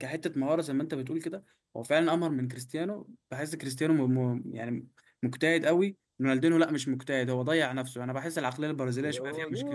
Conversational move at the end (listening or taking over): taking over